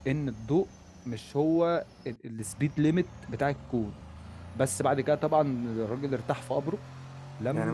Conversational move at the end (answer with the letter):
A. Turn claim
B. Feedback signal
A